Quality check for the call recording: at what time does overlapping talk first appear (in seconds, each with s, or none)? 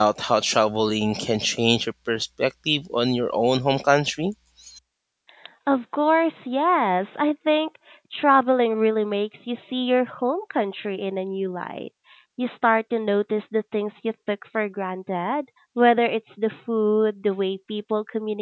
none